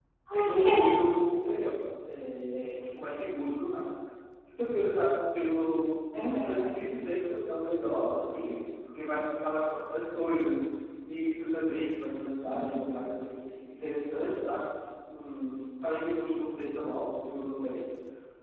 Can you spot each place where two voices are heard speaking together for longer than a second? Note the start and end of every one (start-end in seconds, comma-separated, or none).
none